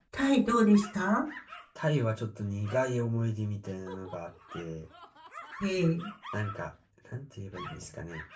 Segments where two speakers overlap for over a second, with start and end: none

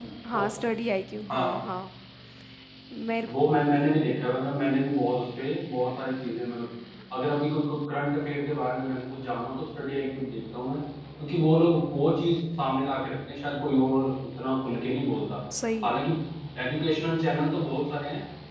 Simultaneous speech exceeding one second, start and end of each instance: none

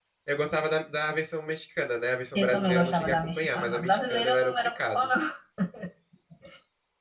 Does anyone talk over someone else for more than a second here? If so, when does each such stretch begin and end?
2.4-5.1

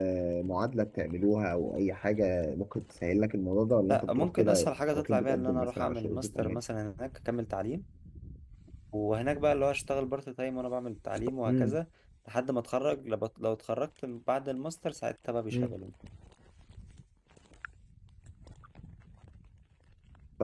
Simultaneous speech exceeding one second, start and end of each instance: 3.9-6.6

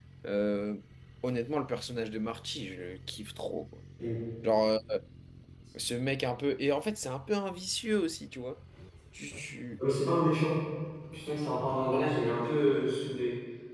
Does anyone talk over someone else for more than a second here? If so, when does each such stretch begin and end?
none

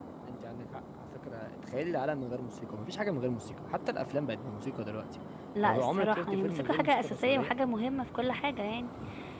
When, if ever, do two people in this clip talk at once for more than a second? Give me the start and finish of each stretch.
5.6-7.5

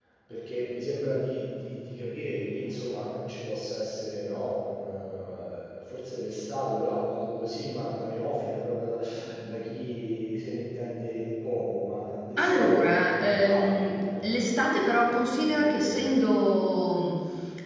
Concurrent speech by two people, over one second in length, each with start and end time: 12.4-14.6

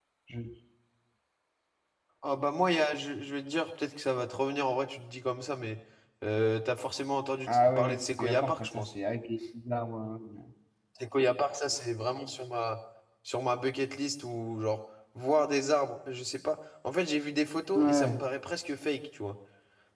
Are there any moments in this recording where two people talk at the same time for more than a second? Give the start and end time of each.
7.5-8.8

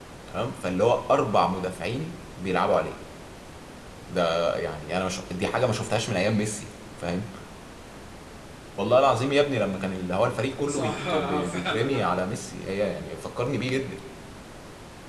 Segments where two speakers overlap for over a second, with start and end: 10.6-12.1

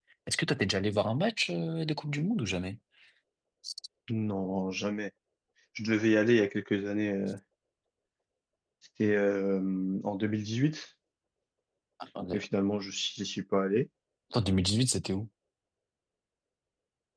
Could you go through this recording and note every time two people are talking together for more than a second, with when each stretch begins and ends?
none

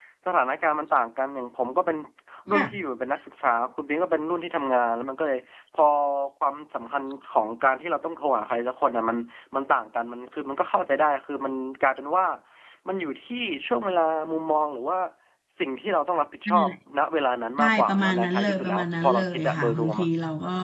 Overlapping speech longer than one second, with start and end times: 17.6-20.1

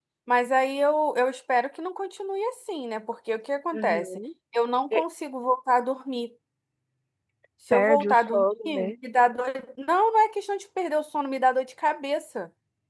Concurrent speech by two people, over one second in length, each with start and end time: 7.7-8.9

